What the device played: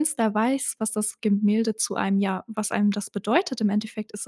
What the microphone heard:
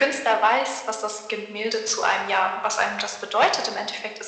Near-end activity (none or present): none